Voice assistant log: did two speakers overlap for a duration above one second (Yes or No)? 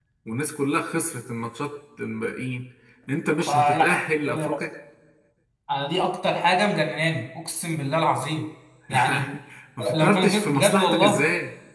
Yes